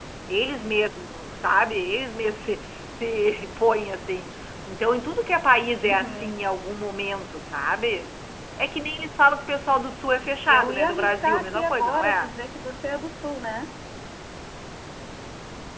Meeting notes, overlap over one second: present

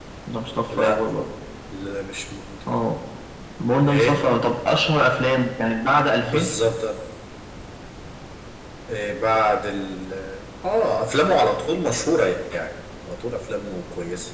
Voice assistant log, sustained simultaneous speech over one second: none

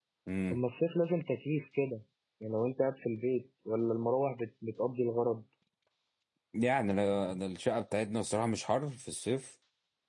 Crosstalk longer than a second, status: none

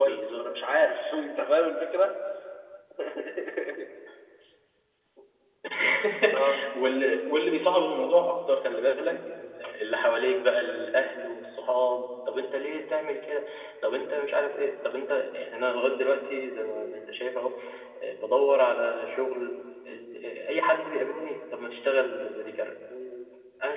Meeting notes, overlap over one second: none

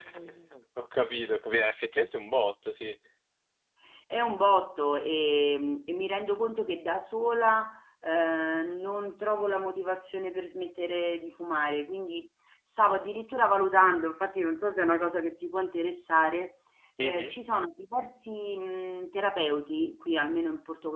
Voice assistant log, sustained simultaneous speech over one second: none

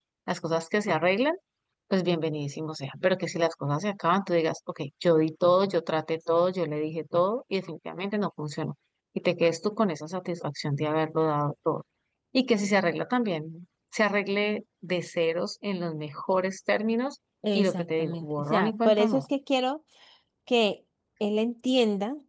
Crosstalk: present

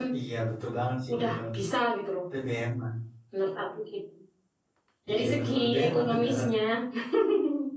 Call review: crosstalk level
present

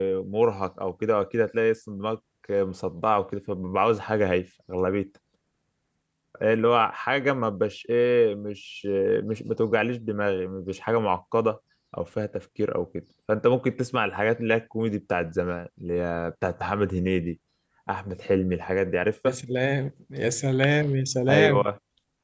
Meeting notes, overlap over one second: none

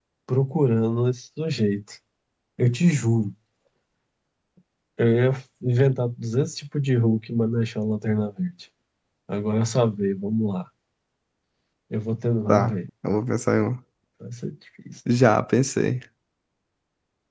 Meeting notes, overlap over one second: none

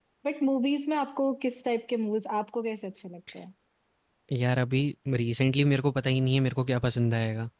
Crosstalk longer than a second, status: none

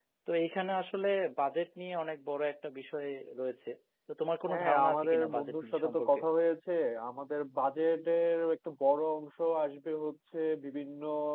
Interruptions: present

